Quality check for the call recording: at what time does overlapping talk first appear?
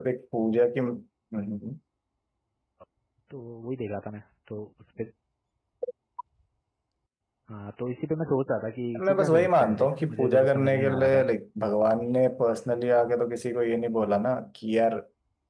9 s

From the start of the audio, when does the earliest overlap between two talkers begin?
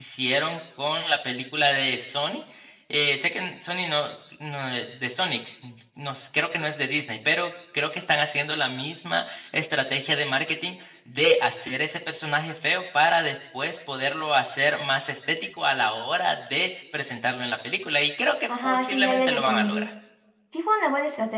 18 s

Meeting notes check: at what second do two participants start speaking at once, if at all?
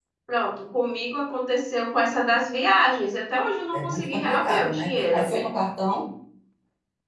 4 s

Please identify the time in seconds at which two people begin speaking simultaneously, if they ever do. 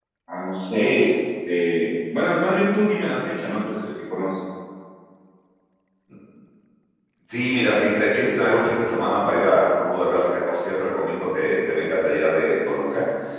none

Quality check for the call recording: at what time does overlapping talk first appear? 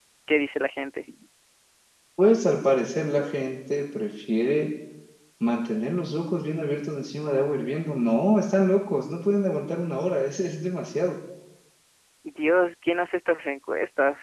none

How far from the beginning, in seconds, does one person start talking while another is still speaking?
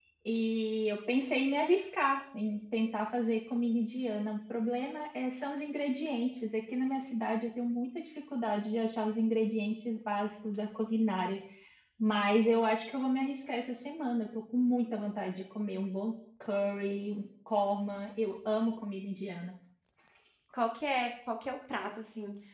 none

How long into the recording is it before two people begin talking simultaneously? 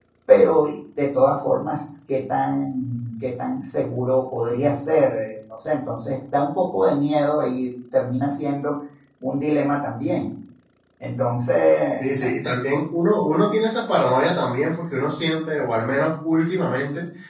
none

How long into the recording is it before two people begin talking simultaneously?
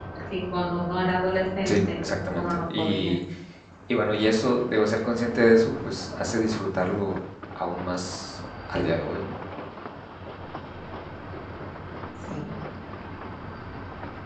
2 s

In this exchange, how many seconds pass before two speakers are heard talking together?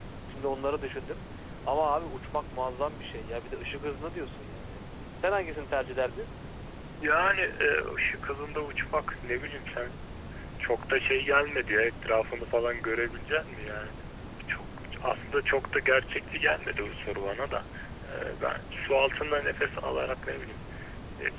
none

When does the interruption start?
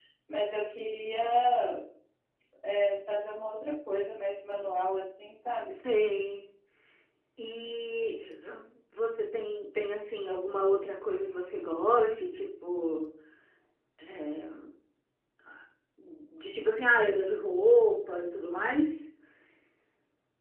none

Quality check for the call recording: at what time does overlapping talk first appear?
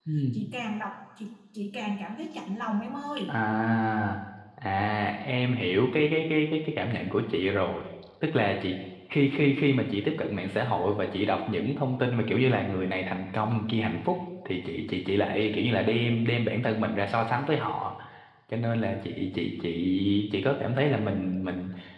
none

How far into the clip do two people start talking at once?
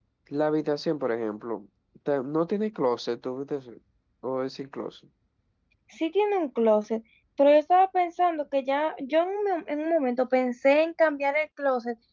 none

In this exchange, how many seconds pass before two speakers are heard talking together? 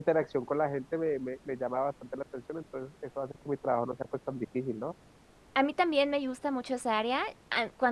none

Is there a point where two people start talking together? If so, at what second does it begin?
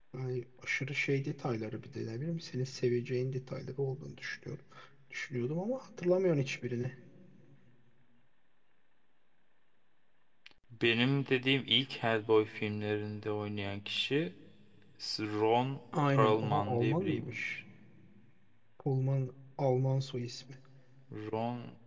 16 s

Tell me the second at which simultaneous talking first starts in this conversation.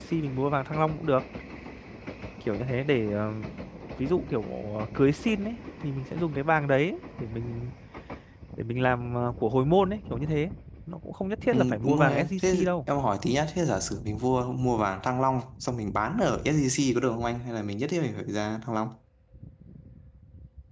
12 s

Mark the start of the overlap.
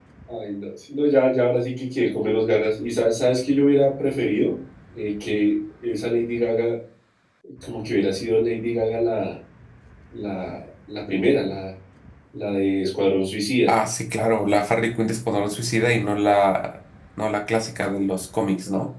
none

